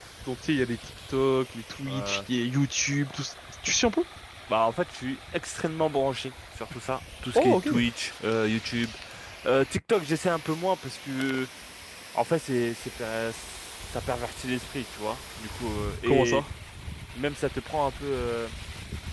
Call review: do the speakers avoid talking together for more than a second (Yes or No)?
Yes